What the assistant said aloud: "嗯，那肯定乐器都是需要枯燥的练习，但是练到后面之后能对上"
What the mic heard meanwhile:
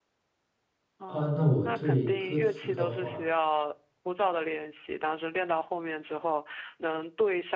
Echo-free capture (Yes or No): No